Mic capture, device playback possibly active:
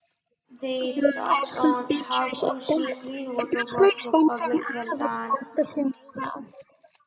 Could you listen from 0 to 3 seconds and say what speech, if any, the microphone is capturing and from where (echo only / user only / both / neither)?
both